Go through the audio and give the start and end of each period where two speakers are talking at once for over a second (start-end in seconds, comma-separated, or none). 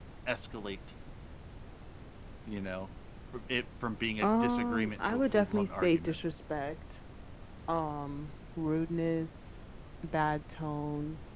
4.2-6.2